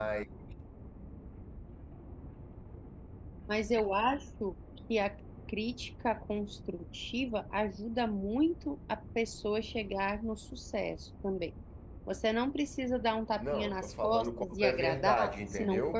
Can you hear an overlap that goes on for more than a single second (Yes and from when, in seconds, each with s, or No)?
Yes, from 13.4 s